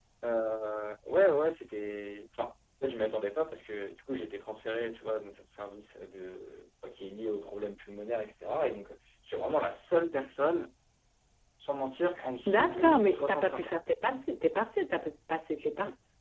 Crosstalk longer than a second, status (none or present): present